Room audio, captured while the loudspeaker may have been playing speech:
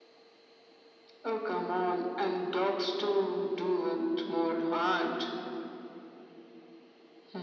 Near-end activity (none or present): none